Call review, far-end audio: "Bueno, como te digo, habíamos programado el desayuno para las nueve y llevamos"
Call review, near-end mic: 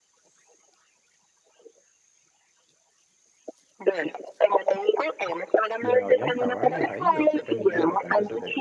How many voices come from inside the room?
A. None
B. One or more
B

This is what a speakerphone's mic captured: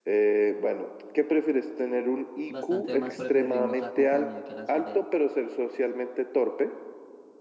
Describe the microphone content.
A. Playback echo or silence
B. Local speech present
B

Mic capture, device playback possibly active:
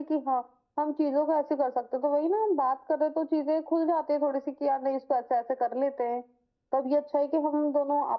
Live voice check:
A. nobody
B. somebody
A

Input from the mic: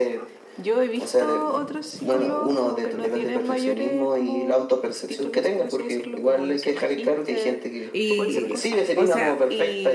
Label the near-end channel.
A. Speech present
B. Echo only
A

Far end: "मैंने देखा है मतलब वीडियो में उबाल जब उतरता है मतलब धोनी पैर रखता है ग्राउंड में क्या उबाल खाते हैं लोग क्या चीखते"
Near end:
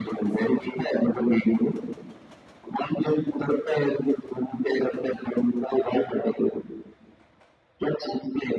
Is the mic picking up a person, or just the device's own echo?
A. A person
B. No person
B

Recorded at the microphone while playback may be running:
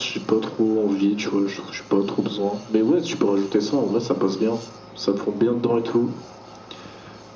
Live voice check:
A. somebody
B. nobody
B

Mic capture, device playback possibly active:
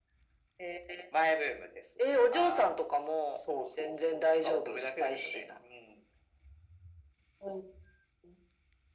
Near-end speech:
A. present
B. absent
B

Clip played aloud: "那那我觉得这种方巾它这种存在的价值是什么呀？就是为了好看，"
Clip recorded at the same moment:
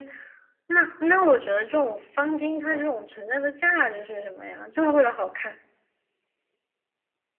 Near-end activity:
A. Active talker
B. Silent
B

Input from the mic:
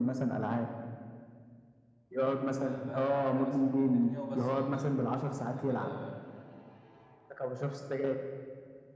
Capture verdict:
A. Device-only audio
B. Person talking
B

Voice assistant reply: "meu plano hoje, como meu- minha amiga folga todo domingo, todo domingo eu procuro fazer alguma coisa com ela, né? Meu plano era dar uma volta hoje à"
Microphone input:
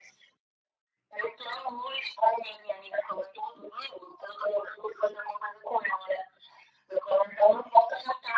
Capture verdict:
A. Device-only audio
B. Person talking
A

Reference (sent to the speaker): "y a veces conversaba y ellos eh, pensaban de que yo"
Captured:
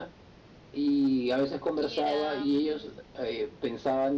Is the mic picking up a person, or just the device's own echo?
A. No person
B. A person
B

